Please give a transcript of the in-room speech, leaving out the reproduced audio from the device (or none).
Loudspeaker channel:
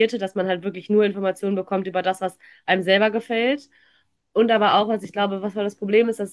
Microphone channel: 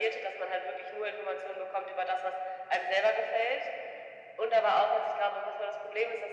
none